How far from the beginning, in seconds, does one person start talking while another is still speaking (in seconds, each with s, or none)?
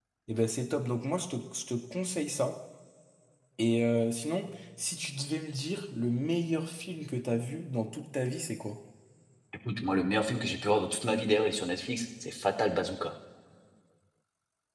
none